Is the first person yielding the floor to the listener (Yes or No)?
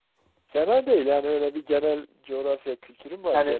Yes